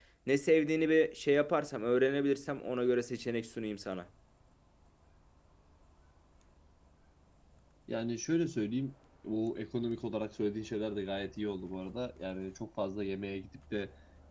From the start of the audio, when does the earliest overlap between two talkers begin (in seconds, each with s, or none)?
none